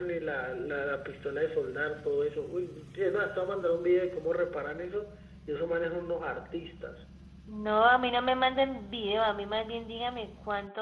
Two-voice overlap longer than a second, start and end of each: none

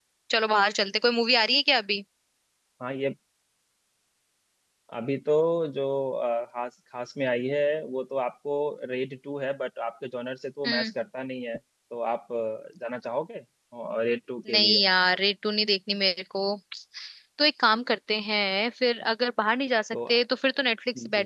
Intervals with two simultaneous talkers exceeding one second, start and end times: none

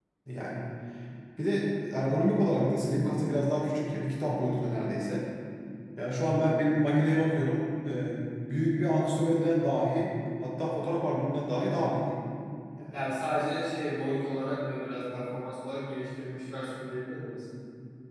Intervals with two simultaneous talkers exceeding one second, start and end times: none

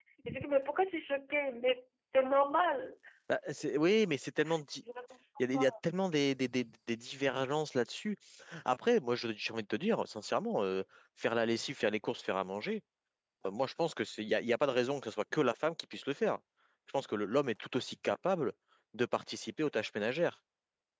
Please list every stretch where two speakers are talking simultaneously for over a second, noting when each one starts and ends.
none

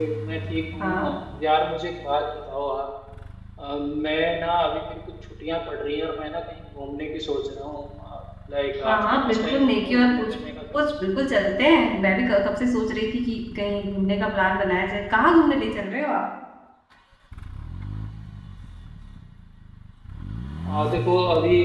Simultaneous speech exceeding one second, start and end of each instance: 8.8-10.3

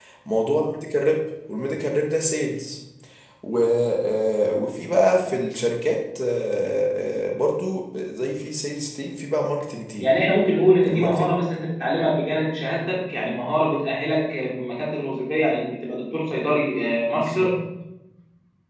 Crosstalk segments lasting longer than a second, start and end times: none

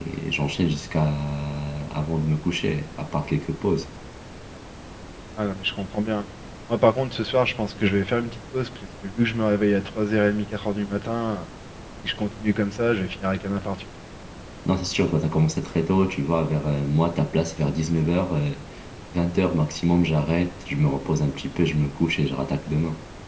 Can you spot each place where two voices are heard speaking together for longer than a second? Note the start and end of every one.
none

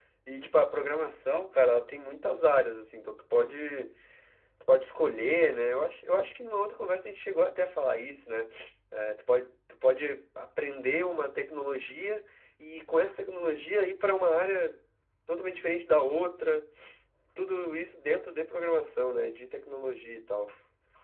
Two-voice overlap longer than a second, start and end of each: none

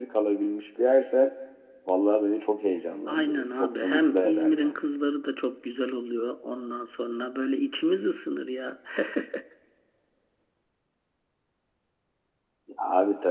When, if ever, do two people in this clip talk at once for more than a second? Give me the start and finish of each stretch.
3.1-4.8

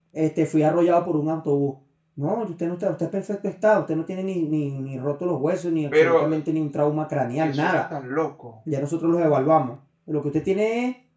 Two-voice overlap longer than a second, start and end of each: none

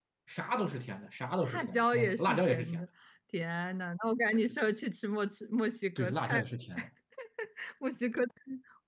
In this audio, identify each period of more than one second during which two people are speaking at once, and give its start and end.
1.4-2.8

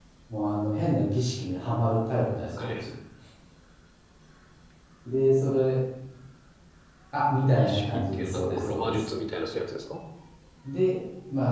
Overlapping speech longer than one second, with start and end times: 7.4-9.0

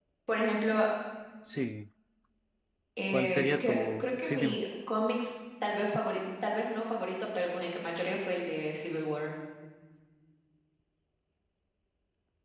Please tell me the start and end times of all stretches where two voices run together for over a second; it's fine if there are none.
3.1-4.6

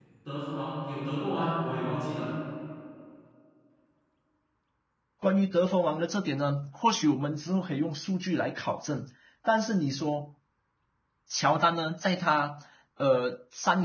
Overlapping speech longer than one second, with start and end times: none

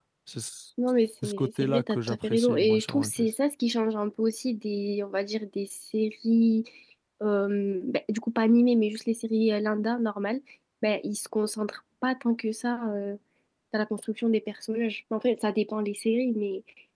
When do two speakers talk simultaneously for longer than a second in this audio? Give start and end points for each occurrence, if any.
1.2-3.3

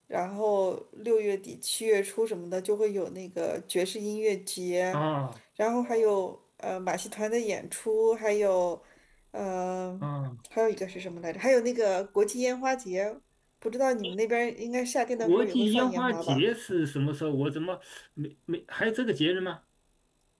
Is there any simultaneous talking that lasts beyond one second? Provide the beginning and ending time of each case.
15.2-16.4

